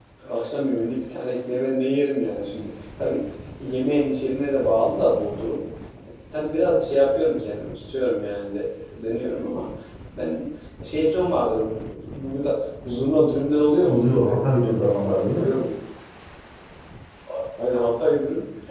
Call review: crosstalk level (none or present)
present